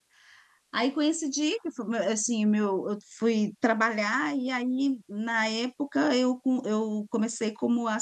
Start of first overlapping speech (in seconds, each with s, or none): none